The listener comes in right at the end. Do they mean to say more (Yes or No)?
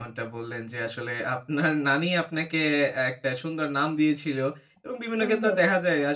No